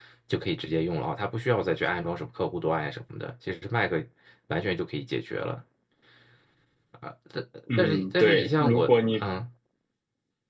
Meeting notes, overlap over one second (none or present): present